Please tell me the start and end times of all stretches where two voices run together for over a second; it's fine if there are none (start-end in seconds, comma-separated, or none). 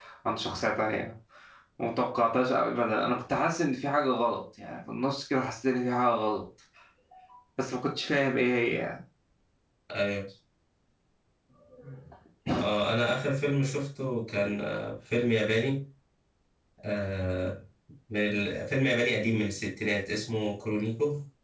none